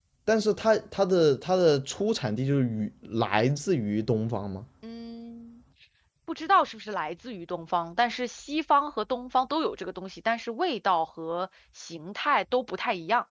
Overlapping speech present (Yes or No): No